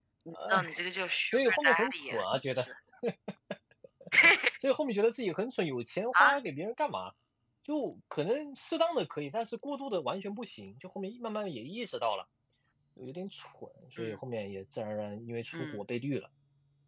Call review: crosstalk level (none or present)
present